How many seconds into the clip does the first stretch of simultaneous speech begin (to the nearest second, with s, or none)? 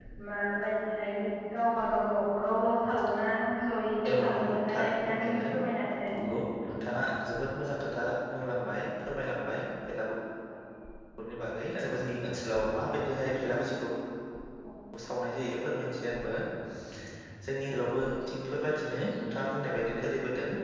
4 s